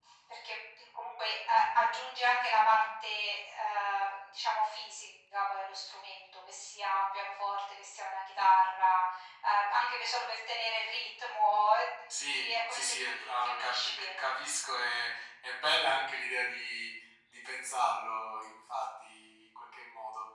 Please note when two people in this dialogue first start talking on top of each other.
12 s

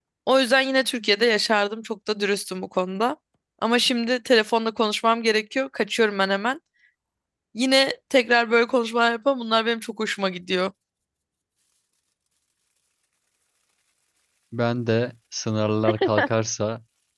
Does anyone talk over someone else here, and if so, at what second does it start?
none

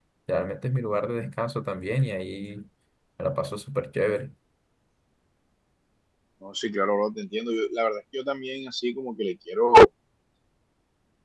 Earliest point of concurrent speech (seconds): none

